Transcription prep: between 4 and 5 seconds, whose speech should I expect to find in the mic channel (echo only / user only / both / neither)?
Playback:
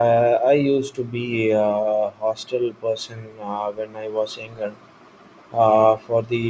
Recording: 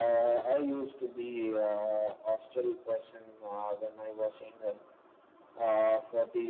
echo only